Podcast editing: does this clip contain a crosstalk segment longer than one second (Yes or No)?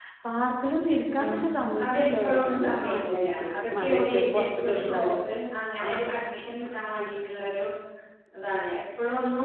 Yes